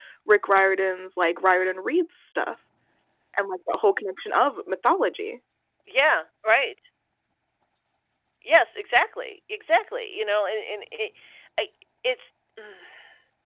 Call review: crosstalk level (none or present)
none